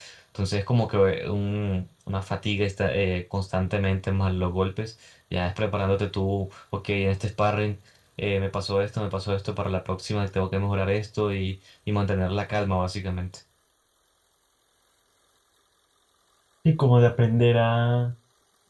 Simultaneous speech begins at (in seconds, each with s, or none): none